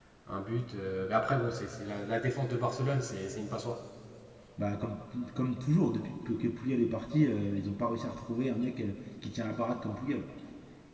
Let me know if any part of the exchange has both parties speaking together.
No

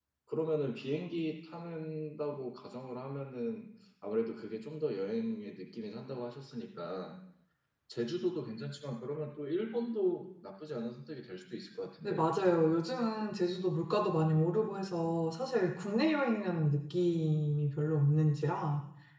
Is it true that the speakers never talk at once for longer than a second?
Yes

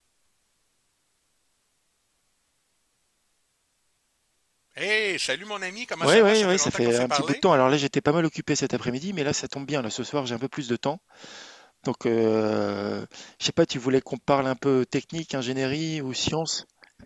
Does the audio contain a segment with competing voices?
Yes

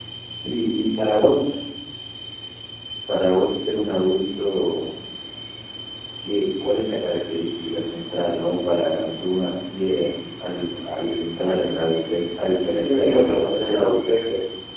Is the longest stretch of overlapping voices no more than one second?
No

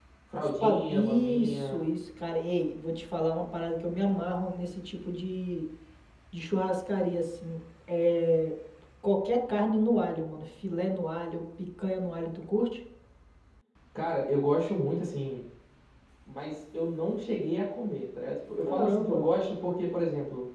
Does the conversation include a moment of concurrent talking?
Yes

